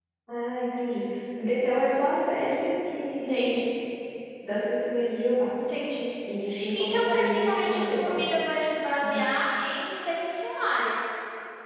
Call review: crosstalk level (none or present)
present